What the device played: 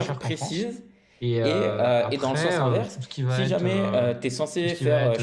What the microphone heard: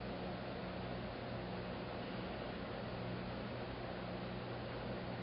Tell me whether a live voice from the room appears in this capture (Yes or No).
No